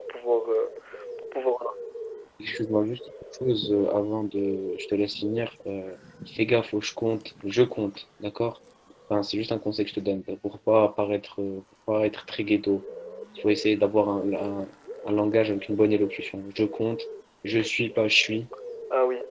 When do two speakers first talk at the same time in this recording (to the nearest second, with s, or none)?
none